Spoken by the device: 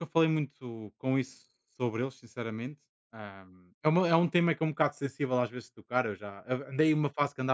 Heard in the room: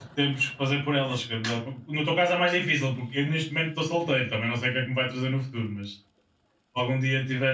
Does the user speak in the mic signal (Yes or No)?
Yes